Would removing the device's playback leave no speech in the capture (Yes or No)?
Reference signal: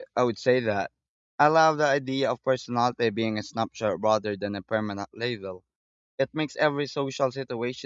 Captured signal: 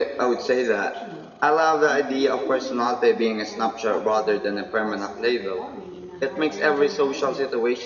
No